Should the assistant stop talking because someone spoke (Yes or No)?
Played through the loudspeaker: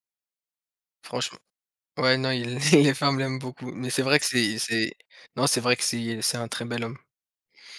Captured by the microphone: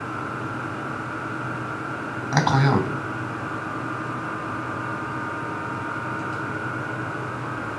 Yes